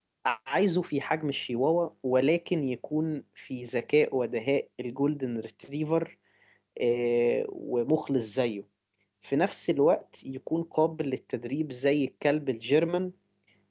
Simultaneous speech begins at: none

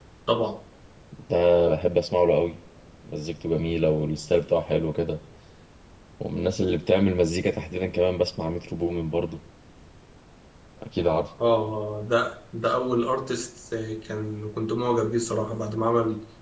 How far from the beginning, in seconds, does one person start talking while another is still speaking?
none

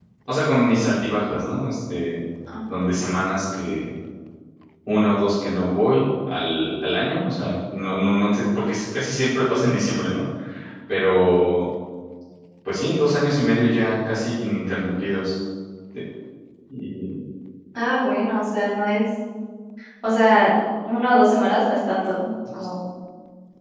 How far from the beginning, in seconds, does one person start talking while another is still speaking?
none

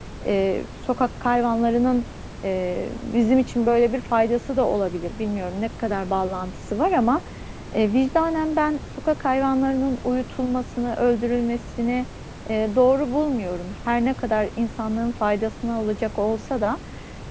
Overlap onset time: none

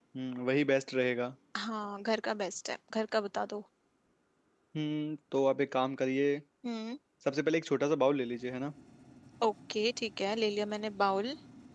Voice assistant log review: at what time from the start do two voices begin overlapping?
none

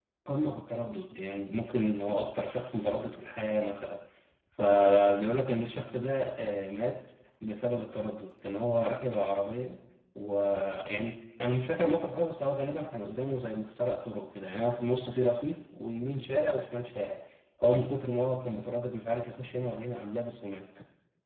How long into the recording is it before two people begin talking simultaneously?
none

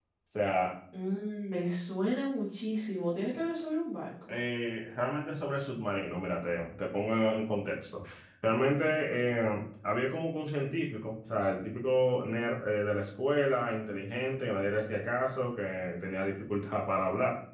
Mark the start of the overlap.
none

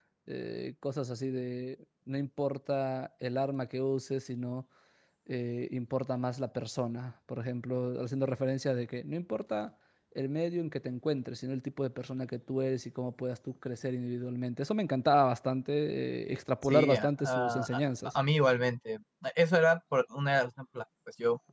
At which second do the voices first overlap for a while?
16.6 s

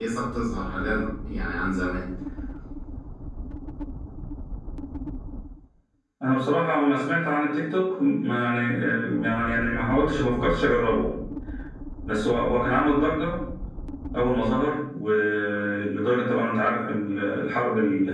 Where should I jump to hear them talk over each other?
none

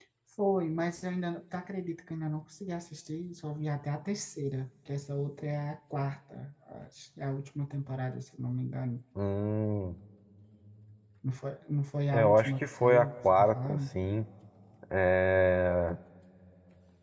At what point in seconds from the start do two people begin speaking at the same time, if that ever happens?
12.1 s

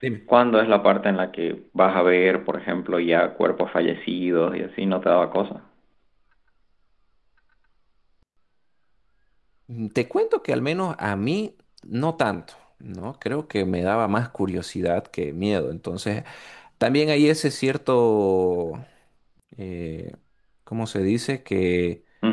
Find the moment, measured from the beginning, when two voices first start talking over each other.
none

